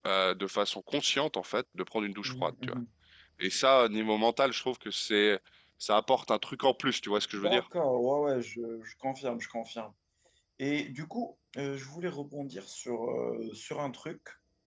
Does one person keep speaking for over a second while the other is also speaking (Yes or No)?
No